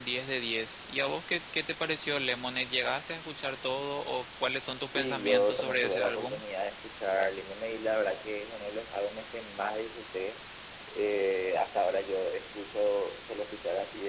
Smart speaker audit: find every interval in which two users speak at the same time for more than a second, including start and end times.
4.9-6.4

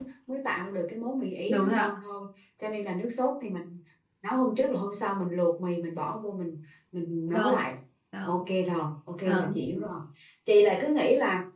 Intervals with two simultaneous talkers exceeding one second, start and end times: none

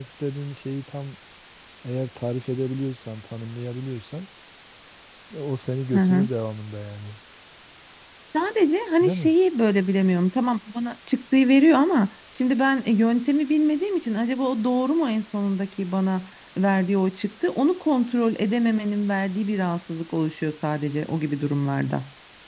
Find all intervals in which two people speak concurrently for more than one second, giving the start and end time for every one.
none

